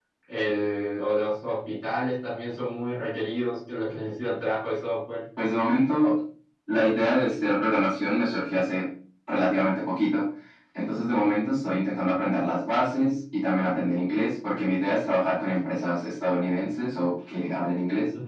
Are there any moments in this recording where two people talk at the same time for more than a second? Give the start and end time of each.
none

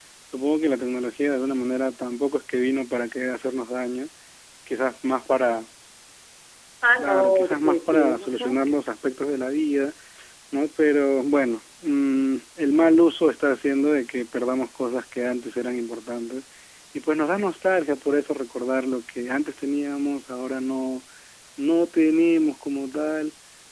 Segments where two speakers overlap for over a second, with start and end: 7.0-8.6

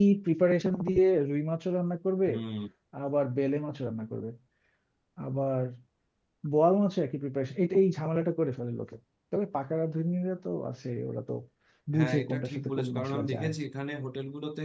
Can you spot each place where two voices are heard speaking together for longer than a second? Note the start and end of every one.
12.0-13.5

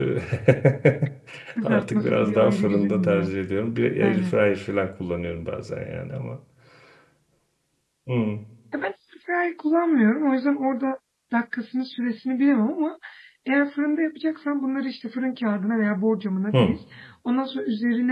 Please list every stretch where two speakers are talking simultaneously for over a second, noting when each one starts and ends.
1.6-3.3

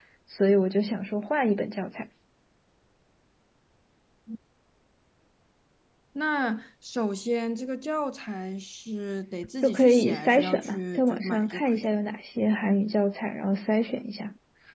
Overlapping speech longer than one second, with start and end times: 9.6-11.9

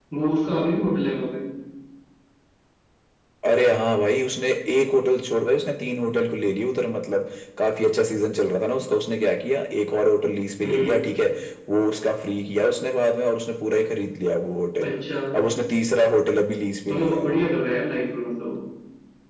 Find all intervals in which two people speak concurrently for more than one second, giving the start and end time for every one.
none

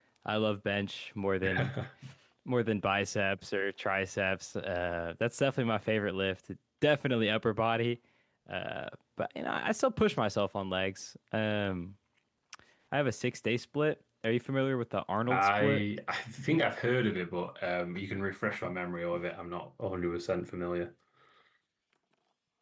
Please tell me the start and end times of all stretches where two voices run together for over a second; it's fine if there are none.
none

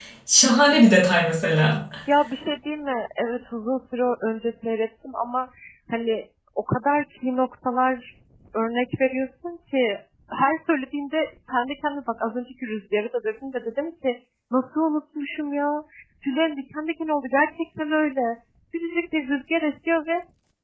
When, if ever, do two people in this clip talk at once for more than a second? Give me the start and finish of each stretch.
none

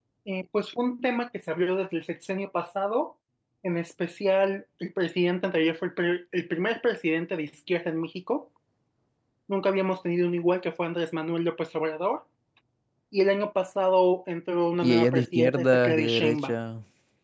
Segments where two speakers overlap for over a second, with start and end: 14.8-16.5

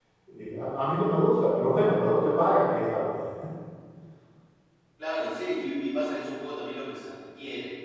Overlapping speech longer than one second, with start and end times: none

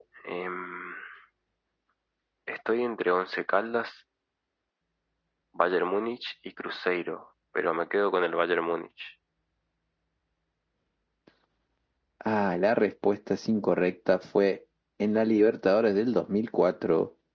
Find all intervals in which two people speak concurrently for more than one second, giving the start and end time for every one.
none

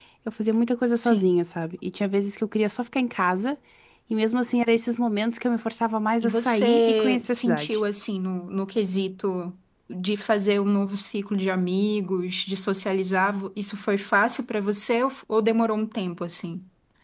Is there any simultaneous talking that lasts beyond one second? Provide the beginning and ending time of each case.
6.2-7.8

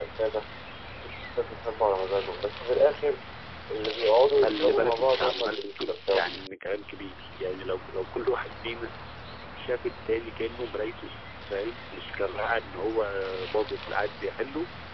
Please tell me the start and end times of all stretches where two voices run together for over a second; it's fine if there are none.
4.4-6.4

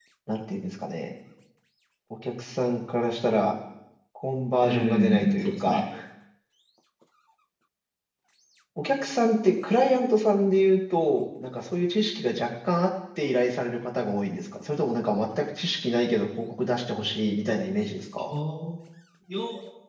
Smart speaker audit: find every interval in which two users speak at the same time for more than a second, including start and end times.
4.6-5.8

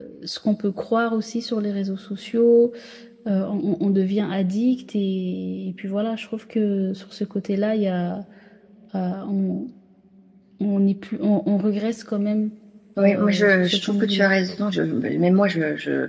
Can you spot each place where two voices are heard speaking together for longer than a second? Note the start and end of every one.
13.0-14.3

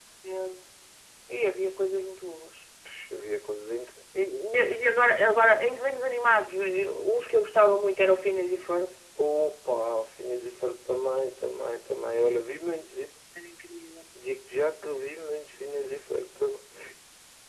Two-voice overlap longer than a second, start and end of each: none

